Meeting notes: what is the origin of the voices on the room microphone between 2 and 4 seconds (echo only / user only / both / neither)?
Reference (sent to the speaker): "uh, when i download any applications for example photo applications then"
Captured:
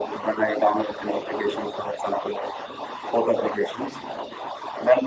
echo only